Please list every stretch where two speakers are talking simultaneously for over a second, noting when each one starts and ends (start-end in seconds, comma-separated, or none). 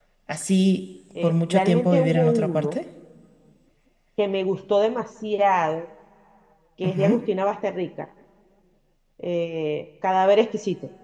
1.2-2.8